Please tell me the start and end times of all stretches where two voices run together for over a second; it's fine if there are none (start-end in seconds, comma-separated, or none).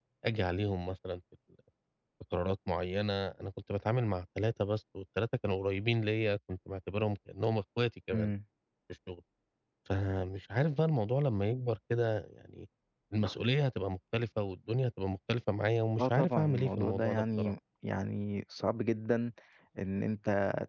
16.0-17.5